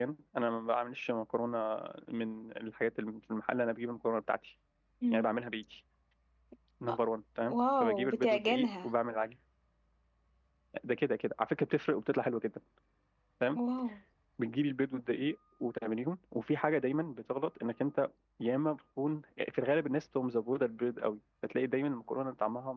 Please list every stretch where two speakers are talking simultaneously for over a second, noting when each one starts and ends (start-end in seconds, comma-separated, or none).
7.5-8.9